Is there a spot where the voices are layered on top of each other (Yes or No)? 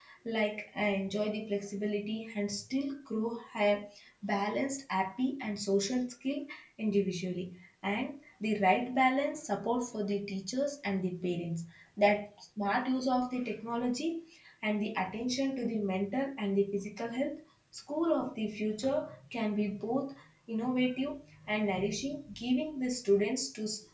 No